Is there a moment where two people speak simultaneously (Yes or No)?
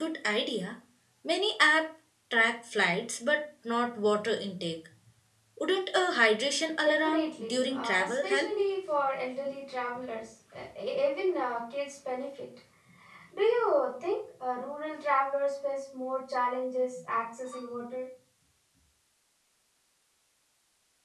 Yes